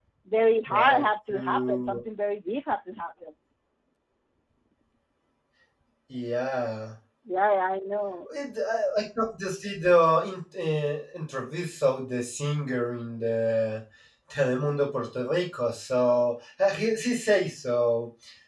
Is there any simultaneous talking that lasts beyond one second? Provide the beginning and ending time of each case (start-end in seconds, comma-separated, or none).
0.7-2.0